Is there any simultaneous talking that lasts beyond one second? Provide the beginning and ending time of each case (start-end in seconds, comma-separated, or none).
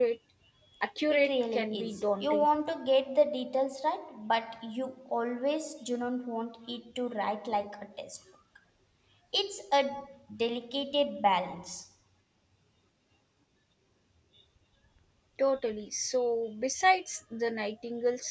1.1-2.5